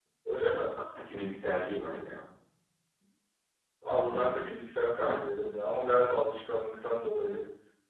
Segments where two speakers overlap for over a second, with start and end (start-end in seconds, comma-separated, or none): none